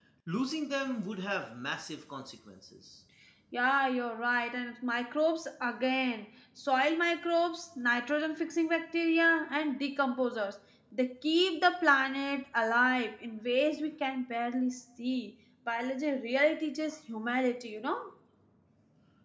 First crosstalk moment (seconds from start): none

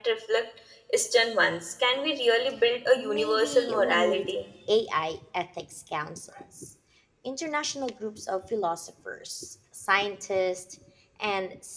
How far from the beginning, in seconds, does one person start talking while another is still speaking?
3.0 s

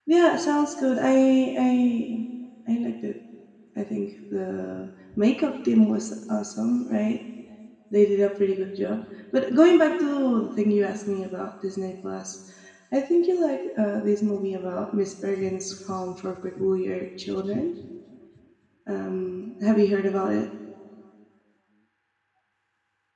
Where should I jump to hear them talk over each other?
none

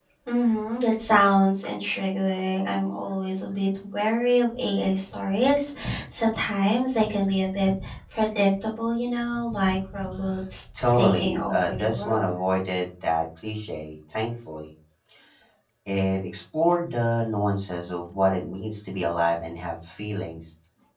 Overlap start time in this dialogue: 10.8 s

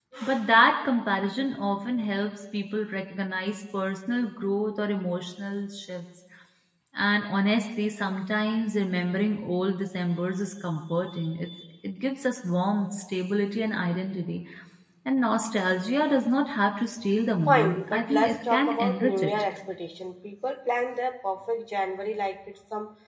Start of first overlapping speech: 17.5 s

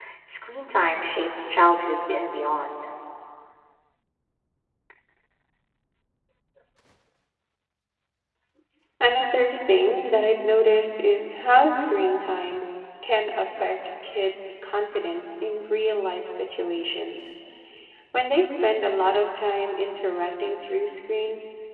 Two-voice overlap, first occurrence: none

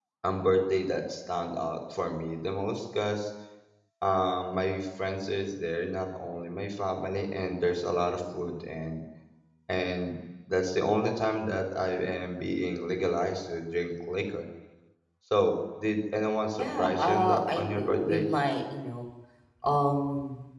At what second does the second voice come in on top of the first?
16.6 s

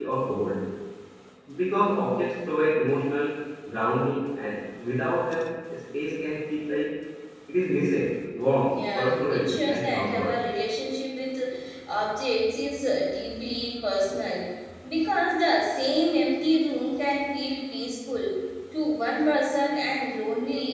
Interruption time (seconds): 8.7 s

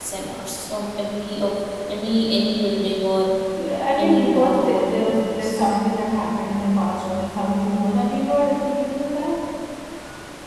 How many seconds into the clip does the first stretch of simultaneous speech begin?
4.0 s

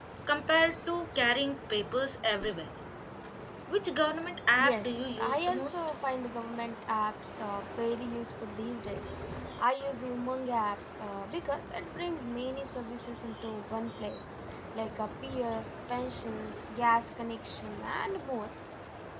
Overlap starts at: 4.6 s

